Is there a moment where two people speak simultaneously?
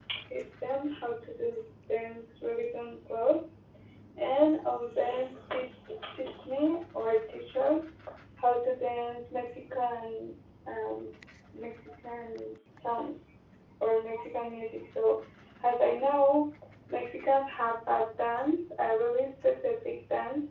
No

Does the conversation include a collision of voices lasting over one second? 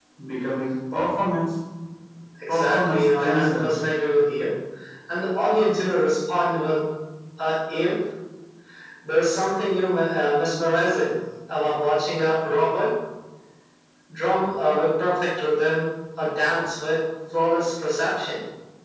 Yes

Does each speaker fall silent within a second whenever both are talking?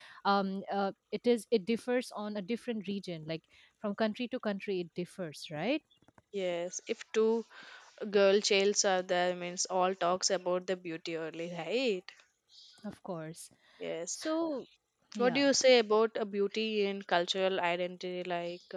Yes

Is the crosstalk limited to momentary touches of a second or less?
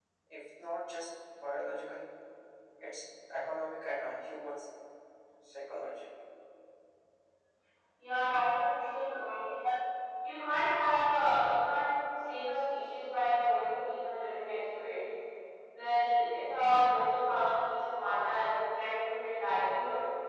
Yes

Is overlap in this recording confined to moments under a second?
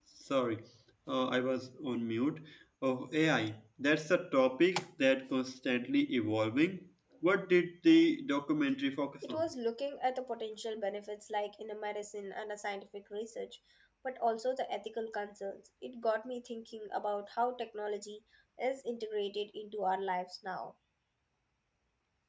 Yes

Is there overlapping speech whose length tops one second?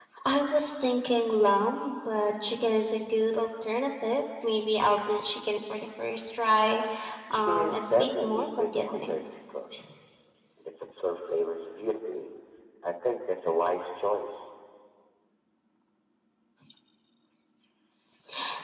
Yes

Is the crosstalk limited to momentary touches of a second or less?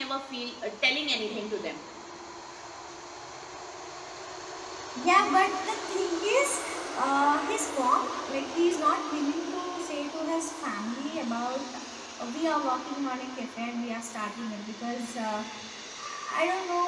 Yes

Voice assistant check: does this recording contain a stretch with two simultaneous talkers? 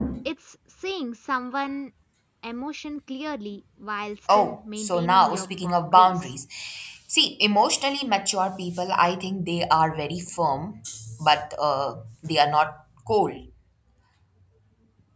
Yes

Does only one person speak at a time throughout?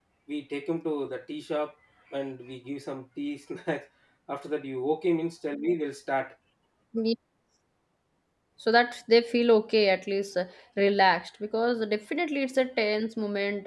Yes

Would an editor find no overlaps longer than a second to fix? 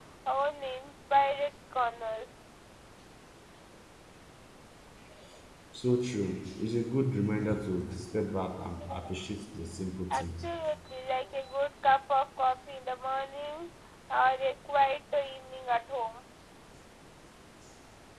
Yes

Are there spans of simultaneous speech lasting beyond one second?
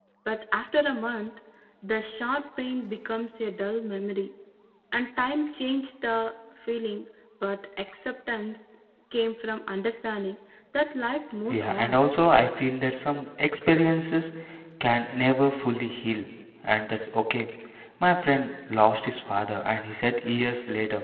No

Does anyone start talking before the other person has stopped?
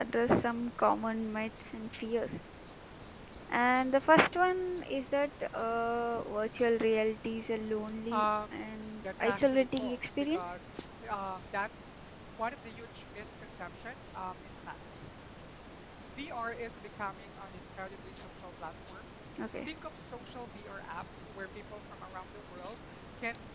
Yes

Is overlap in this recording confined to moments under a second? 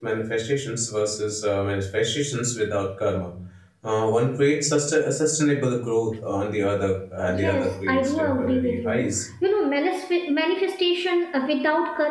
No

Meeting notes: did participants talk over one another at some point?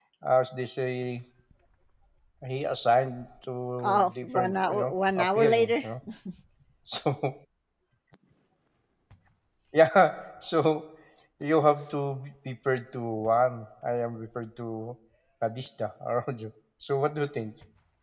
Yes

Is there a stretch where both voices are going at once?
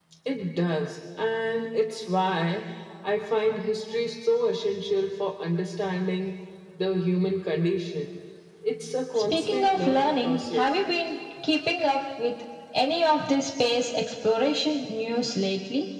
Yes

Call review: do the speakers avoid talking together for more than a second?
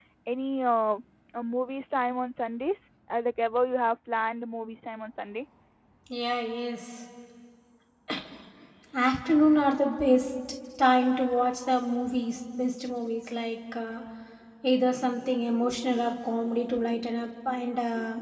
Yes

